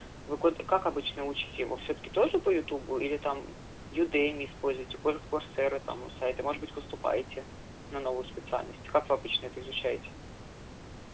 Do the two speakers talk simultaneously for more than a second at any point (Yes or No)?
No